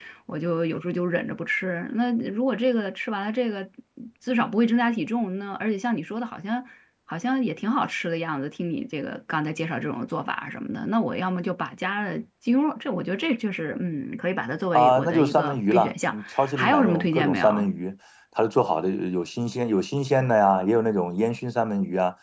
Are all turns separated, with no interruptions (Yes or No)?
No